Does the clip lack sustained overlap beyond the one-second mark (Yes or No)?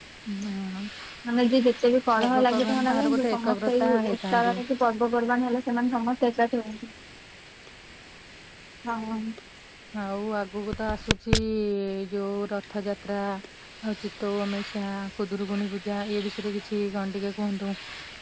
No